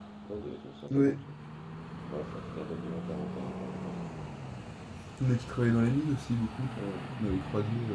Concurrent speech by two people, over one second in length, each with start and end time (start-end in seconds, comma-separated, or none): none